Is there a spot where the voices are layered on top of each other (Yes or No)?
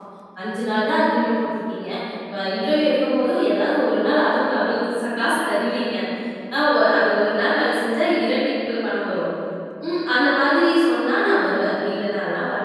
No